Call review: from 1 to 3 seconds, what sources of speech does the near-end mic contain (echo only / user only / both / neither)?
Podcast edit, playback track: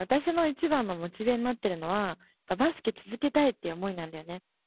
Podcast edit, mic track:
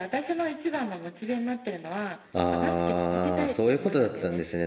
both